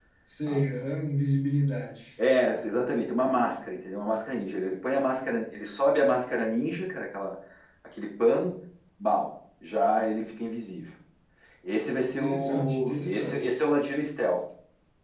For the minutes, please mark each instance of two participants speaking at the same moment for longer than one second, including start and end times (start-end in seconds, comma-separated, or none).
12.0-13.5